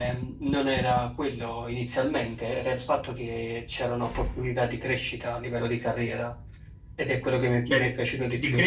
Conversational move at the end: taking over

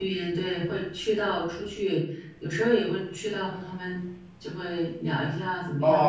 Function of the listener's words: taking over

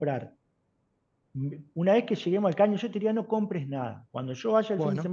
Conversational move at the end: listening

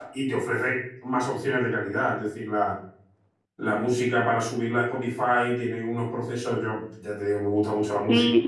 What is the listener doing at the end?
taking over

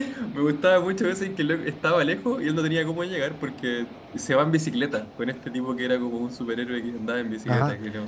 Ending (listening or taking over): taking over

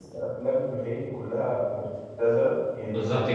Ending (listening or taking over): listening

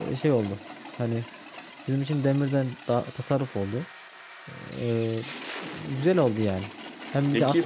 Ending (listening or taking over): listening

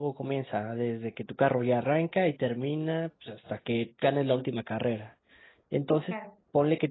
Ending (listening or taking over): listening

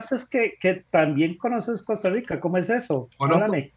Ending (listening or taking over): taking over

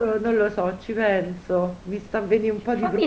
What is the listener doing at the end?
taking over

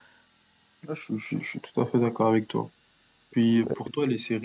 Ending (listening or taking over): listening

